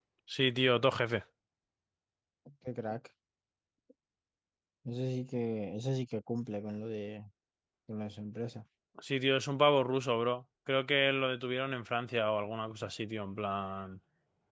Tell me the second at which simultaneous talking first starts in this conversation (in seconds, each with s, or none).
none